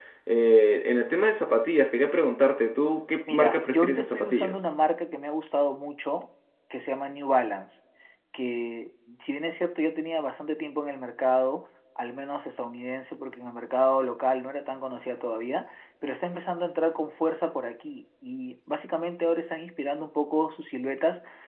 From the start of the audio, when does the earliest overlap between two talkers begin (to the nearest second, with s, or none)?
3 s